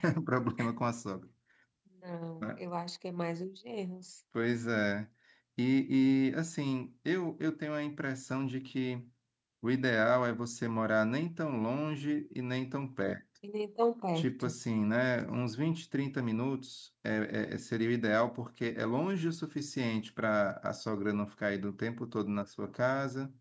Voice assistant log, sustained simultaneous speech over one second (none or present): none